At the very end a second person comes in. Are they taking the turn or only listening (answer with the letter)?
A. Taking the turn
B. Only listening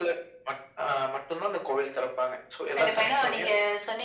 A